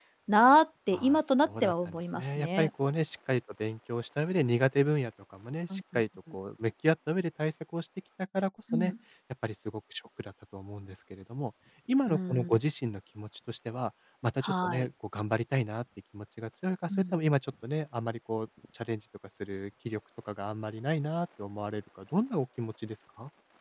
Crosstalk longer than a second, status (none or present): present